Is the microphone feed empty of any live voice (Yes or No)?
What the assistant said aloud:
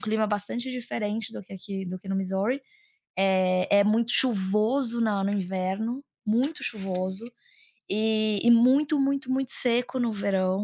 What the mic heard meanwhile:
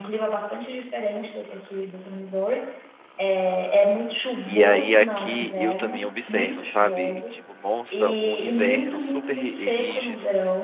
No